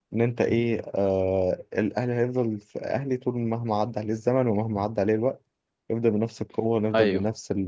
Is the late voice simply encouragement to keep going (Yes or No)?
Yes